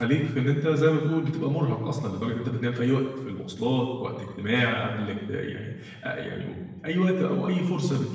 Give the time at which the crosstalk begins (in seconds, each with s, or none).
none